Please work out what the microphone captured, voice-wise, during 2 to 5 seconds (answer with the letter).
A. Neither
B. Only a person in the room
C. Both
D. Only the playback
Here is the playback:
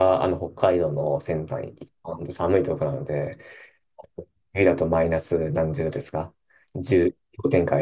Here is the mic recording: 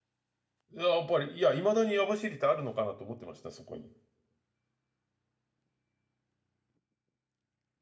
B